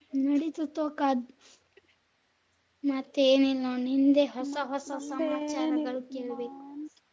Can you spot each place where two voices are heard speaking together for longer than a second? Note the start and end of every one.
4.5-6.5

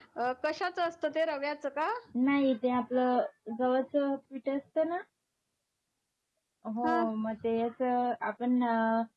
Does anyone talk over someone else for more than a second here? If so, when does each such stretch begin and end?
none

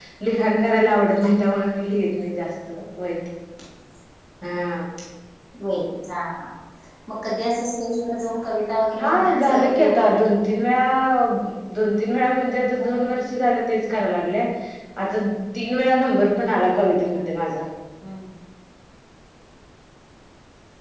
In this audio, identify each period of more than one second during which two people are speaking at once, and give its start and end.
9.0-10.2

